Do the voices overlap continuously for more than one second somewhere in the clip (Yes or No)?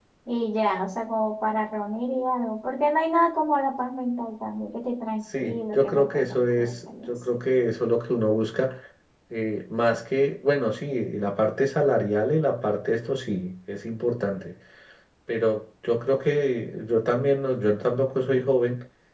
Yes